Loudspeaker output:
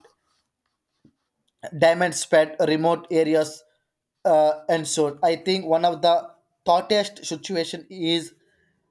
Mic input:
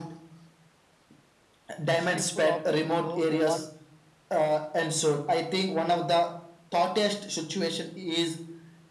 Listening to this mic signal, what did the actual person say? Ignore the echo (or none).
a simple operation go one